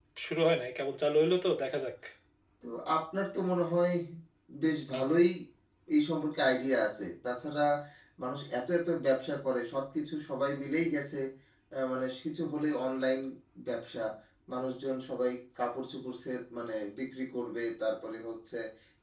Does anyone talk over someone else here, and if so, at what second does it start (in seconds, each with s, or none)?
none